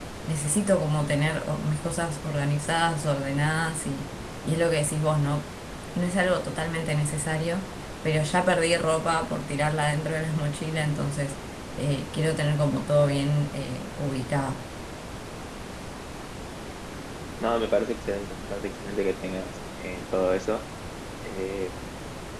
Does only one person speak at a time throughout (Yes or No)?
Yes